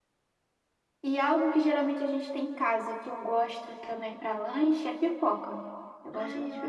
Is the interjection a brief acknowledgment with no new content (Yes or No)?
No